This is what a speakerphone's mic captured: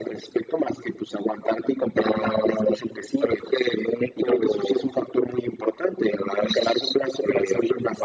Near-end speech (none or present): none